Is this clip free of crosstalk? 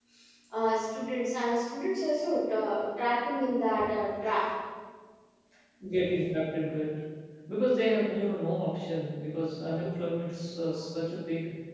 Yes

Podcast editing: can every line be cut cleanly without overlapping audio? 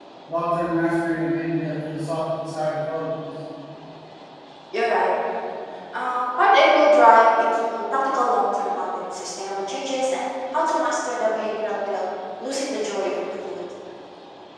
Yes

